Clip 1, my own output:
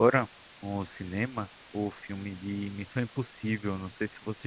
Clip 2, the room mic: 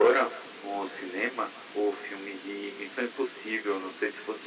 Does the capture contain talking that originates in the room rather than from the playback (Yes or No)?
No